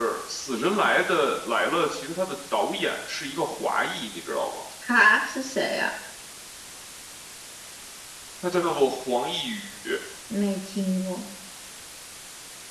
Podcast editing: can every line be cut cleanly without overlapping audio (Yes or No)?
Yes